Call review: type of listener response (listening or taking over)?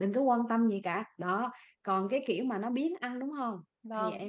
taking over